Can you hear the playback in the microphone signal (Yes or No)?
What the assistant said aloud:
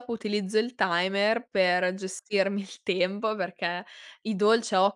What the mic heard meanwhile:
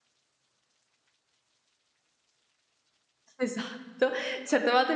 No